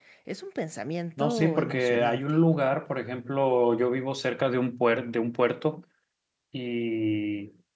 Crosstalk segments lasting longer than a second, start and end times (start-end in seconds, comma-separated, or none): 1.2-2.4